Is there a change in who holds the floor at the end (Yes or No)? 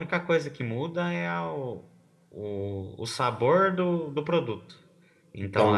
Yes